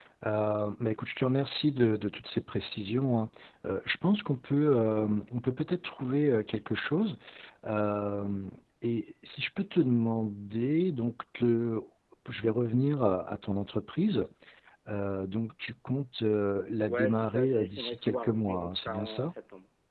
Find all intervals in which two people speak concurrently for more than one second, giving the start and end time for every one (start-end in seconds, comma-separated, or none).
16.9-19.3